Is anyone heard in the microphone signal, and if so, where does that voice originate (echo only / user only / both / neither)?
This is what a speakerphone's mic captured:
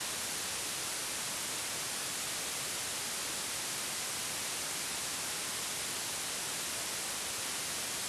neither